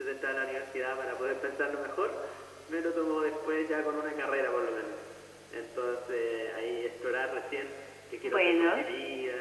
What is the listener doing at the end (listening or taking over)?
listening